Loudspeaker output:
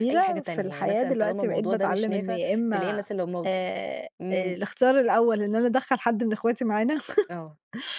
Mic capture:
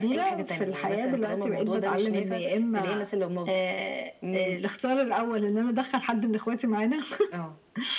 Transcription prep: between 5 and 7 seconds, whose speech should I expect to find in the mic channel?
echo only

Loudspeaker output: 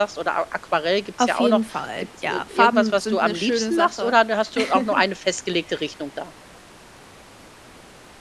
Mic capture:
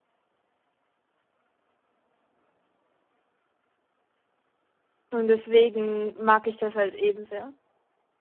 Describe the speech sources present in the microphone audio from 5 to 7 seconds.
user only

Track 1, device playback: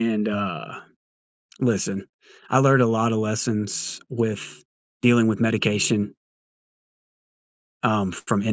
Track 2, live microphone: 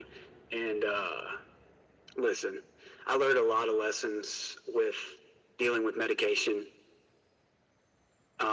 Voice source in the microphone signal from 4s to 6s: echo only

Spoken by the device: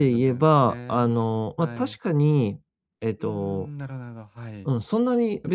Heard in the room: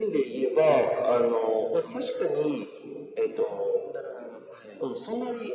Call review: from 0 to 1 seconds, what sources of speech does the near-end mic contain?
echo only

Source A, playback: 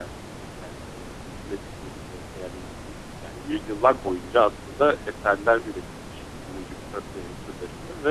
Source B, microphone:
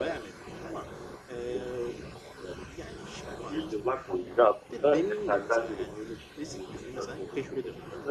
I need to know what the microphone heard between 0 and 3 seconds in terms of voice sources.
both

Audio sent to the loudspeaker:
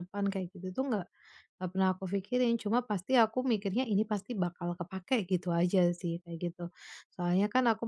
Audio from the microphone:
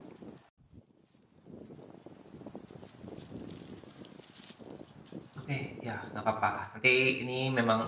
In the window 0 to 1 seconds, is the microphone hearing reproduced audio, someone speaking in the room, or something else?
neither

